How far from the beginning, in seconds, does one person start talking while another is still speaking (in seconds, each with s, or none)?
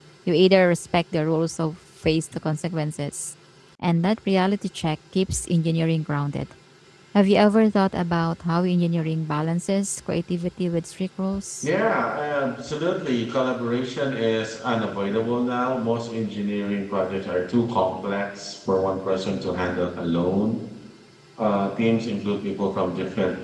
none